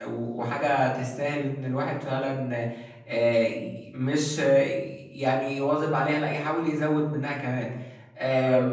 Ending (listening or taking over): listening